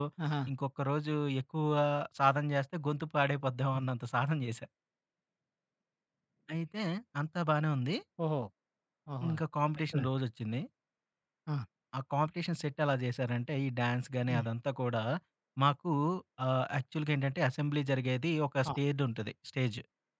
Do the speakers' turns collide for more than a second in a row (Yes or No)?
No